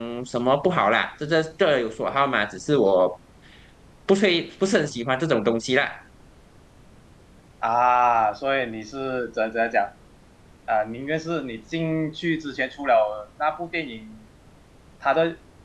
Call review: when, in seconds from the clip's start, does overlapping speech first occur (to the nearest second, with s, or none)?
none